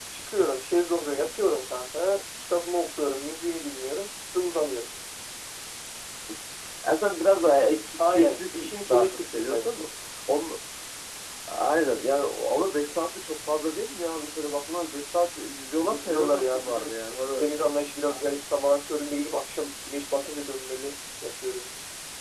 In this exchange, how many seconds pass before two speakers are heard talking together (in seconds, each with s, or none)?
8.1 s